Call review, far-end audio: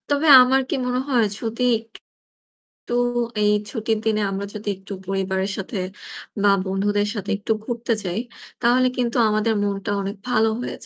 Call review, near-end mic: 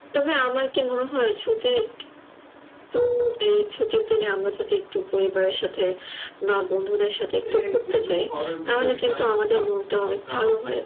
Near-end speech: present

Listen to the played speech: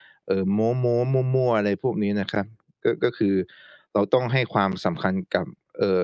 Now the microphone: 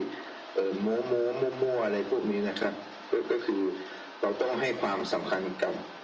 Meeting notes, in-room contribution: none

